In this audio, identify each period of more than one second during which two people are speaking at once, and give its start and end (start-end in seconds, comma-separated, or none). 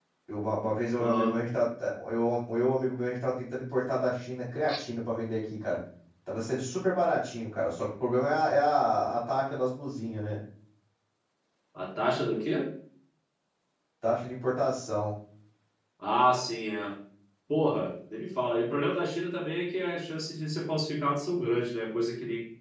none